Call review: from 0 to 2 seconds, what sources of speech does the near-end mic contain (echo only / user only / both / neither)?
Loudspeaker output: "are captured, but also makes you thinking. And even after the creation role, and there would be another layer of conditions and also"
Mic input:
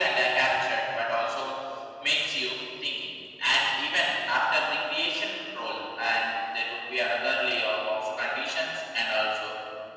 echo only